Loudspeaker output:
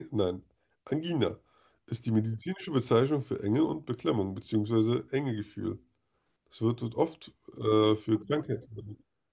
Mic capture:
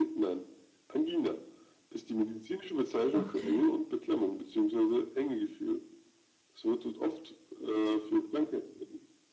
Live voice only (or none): Okay.